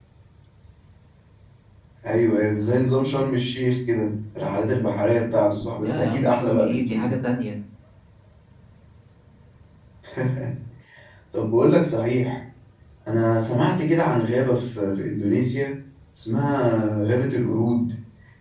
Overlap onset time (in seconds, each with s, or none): 5.8 s